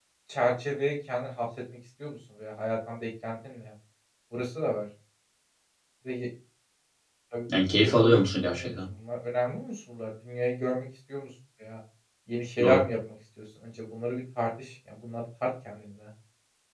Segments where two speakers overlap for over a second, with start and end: 7.5-8.7

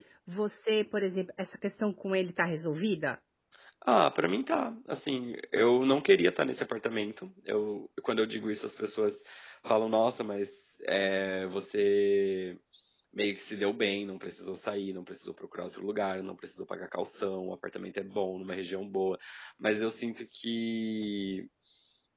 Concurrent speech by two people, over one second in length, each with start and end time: none

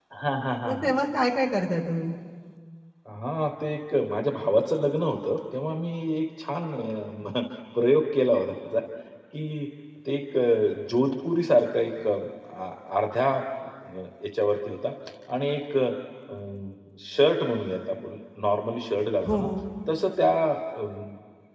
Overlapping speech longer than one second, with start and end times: none

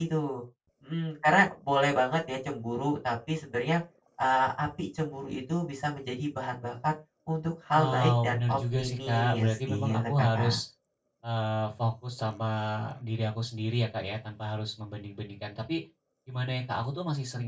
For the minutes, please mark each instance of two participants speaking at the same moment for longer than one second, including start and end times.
7.7-10.6

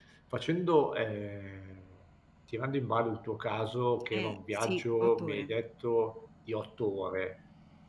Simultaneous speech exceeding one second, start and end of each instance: 4.1-5.5

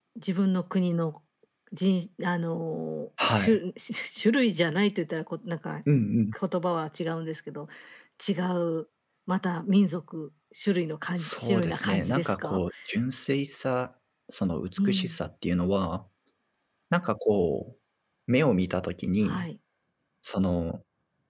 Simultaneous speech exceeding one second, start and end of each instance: 11.2-12.6

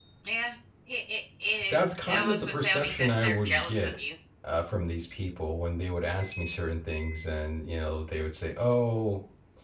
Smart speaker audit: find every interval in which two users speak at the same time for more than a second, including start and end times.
1.7-3.9

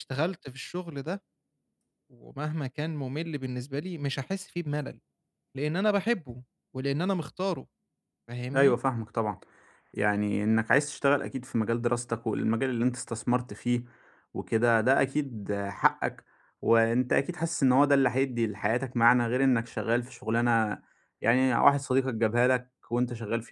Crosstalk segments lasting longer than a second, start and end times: none

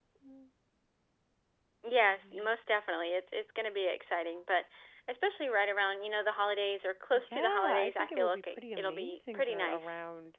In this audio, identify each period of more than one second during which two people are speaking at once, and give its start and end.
7.1-9.9

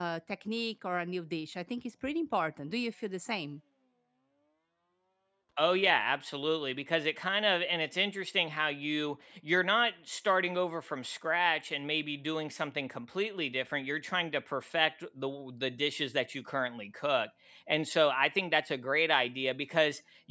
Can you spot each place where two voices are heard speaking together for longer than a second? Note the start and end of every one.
none

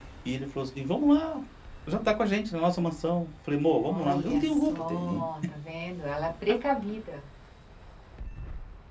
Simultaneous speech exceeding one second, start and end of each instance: 3.9-5.2

